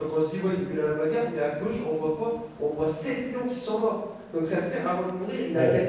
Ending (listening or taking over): listening